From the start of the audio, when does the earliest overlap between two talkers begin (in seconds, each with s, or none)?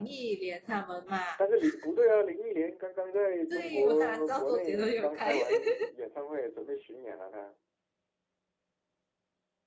3.5 s